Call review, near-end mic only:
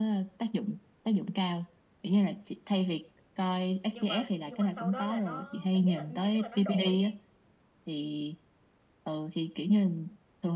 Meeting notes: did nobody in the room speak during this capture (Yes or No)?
No